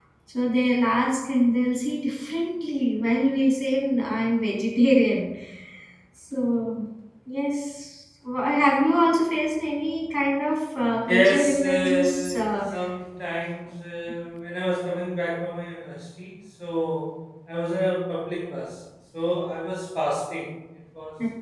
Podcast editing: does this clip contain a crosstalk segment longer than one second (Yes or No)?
Yes